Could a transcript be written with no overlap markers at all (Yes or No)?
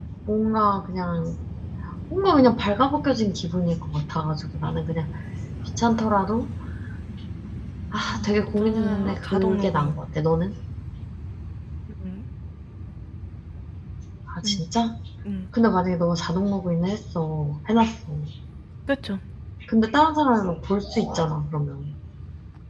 No